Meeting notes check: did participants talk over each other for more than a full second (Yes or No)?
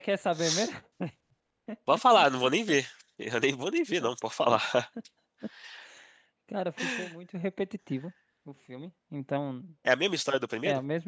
No